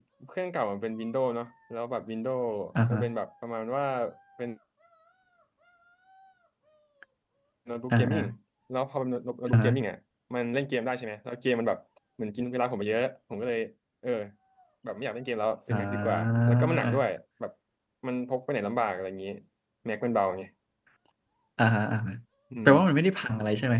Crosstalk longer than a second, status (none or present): present